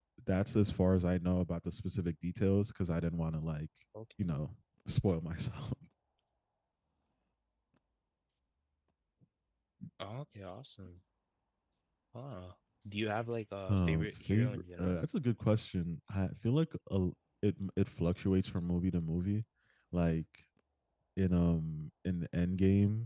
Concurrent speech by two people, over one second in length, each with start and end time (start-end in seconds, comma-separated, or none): 13.7-15.0